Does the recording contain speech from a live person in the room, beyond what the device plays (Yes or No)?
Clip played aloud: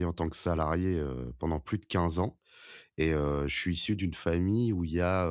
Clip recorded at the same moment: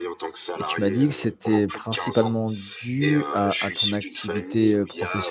Yes